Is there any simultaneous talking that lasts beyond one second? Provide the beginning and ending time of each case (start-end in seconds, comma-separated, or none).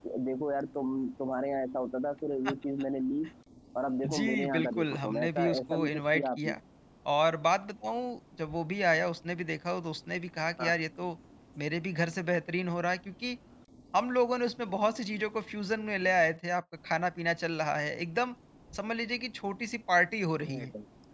4.1-6.5